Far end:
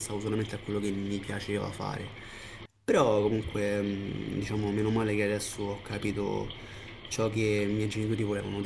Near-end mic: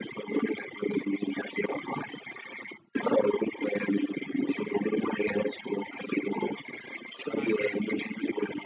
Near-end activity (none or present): present